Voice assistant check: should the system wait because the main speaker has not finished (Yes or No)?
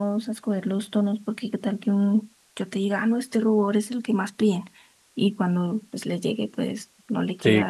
No